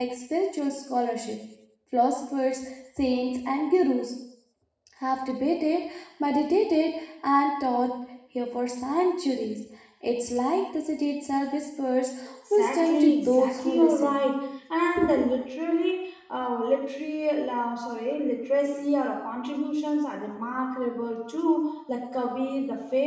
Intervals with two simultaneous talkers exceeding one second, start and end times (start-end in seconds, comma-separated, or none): 12.5-14.2